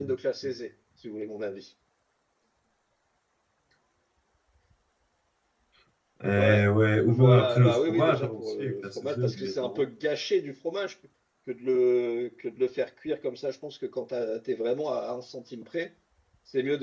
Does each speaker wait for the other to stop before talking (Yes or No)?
No